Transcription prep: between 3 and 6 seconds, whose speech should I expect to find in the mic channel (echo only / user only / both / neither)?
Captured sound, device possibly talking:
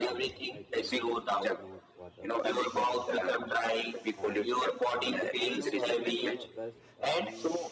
both